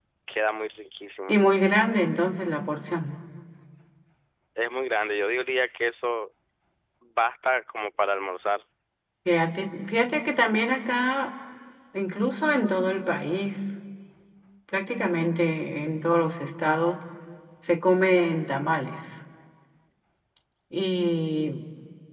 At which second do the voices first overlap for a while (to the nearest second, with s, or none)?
none